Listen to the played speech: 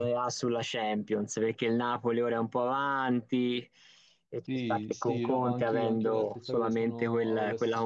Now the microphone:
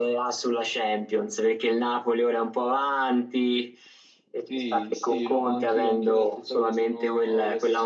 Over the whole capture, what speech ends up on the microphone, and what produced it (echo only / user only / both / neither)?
echo only